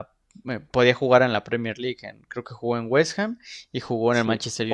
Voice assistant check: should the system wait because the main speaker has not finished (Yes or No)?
No